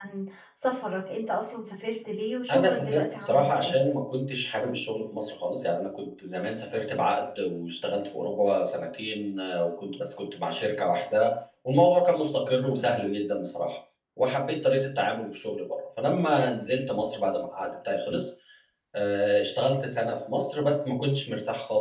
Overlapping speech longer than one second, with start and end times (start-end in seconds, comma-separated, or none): 2.5-3.8